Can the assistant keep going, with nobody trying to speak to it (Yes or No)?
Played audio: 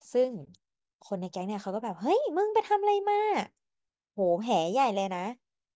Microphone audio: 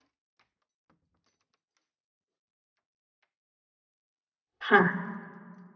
No